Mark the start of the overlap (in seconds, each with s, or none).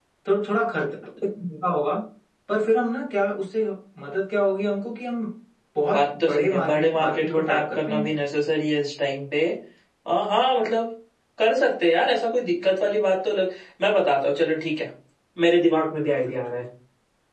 5.9 s